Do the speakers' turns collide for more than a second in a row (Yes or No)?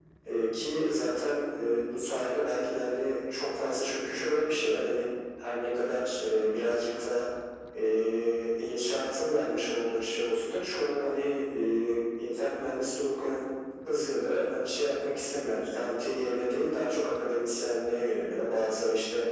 No